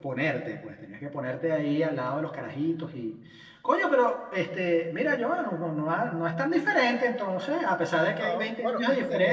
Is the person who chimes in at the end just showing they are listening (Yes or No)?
No